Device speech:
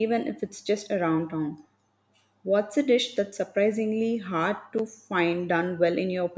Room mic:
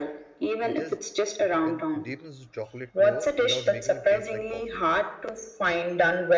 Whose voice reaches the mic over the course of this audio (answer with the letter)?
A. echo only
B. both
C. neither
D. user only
B